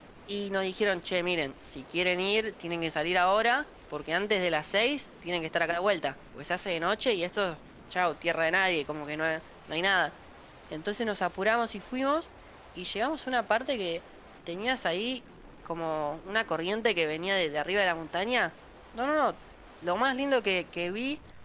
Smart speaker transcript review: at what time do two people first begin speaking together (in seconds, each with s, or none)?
none